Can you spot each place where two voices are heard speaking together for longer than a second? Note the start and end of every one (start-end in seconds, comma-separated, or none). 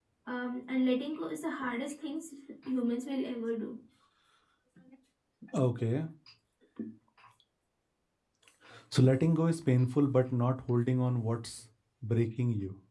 none